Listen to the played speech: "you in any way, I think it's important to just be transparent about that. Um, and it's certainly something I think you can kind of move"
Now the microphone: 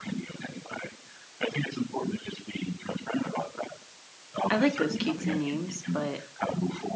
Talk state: both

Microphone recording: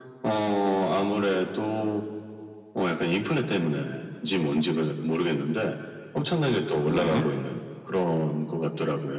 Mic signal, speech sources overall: both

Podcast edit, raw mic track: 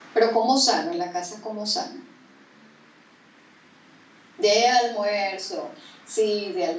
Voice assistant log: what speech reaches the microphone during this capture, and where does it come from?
user only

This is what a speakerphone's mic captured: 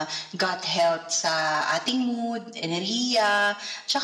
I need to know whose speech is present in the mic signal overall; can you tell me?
echo only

